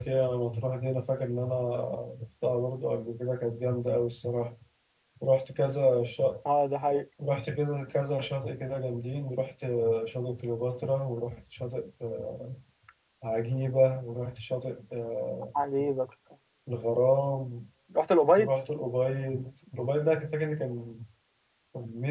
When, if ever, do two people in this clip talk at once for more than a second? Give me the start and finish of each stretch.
none

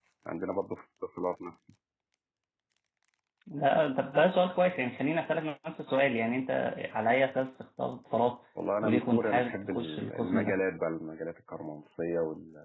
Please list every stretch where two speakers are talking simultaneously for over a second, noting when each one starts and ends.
8.8-10.6

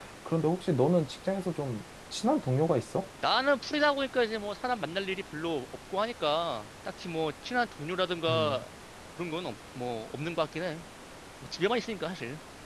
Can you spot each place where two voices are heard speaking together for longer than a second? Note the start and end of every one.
none

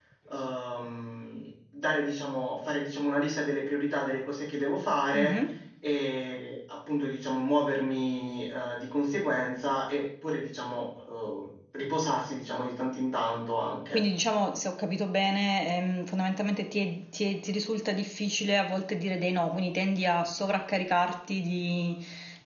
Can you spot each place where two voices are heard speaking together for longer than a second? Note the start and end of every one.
none

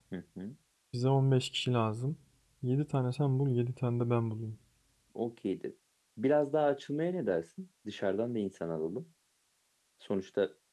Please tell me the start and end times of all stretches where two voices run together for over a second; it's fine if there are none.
none

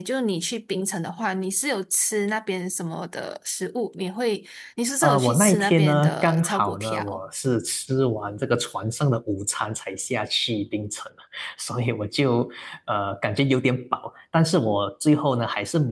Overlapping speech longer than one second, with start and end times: 5.0-7.2

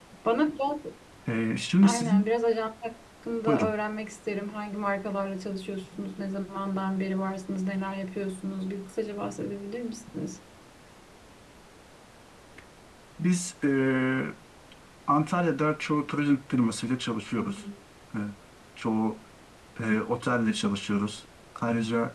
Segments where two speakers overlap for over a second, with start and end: none

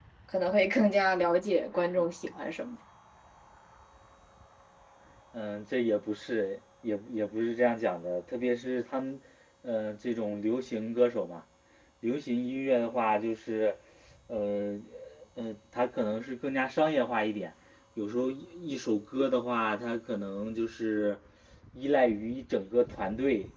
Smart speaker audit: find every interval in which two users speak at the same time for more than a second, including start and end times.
none

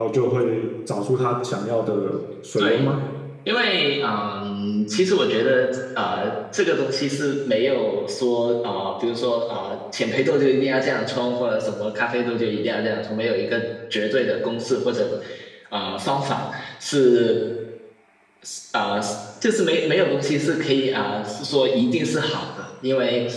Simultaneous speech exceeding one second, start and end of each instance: none

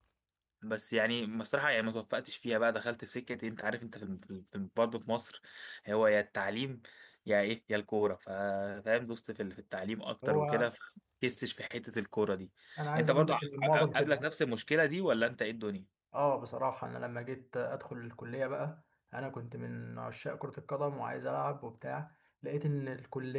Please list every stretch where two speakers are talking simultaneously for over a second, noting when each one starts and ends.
13.0-14.2

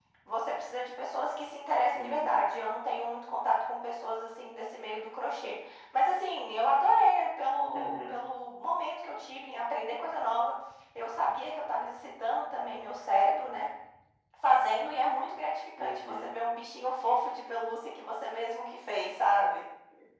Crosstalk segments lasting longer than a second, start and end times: none

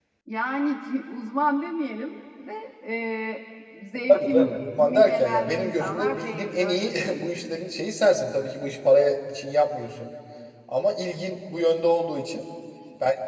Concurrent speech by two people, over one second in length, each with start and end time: 4.1-7.2

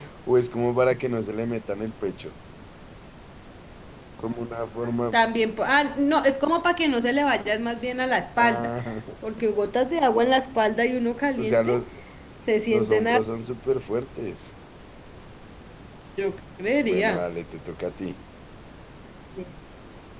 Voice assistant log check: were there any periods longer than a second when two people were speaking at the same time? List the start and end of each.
none

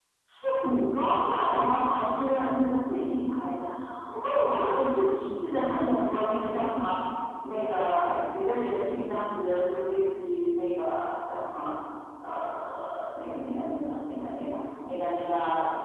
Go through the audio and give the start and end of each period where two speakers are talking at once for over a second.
none

